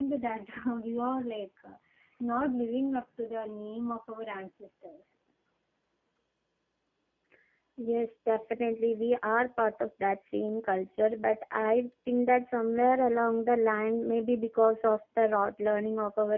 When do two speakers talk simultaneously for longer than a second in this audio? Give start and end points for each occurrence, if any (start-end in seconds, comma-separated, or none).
none